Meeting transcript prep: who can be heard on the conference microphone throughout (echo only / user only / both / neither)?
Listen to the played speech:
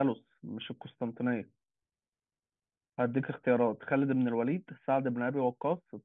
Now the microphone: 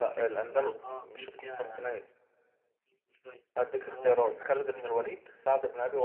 both